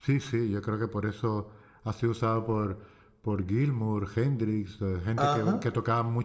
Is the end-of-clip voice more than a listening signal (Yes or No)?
No